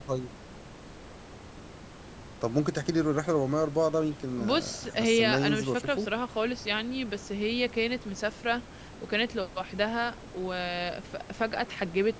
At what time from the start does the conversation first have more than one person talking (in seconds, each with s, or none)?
4.4 s